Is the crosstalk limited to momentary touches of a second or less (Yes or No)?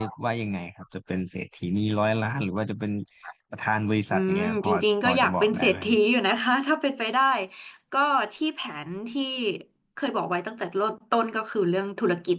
No